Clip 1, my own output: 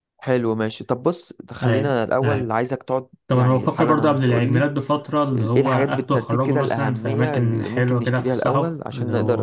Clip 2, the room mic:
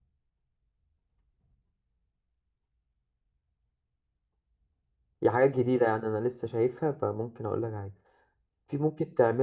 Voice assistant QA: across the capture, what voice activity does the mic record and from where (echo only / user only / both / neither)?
user only